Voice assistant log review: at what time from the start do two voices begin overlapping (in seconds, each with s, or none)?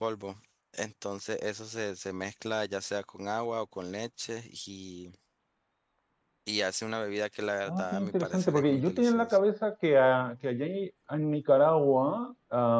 7.6 s